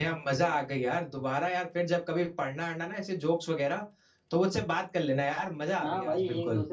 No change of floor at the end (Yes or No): No